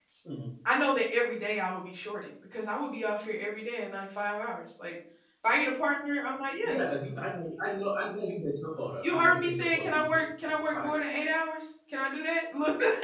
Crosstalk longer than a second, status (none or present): present